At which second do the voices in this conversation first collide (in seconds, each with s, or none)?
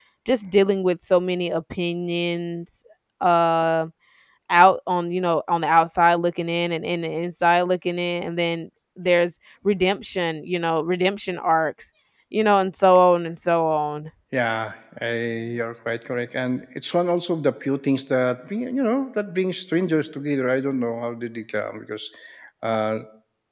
none